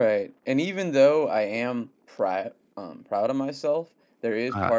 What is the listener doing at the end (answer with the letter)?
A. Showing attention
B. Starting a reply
A